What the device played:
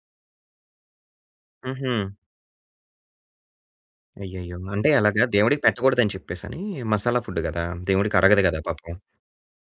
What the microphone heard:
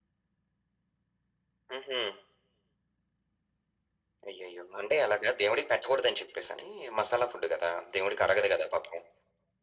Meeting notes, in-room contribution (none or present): none